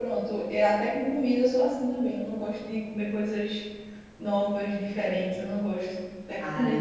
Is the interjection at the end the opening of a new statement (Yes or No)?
Yes